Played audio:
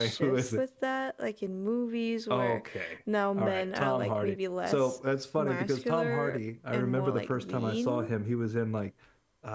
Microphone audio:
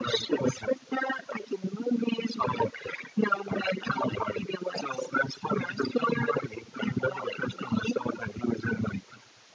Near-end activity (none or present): none